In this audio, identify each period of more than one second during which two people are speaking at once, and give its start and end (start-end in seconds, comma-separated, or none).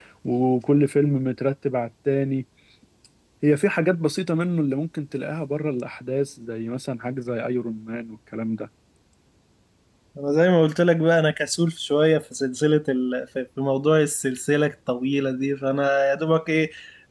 none